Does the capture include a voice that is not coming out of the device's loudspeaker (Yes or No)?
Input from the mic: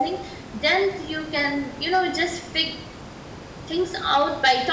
No